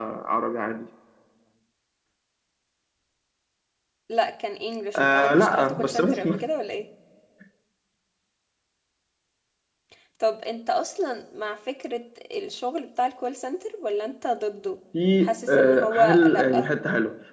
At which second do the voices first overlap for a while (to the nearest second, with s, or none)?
5 s